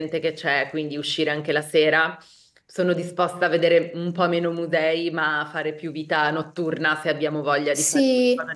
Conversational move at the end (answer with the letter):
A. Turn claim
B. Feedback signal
A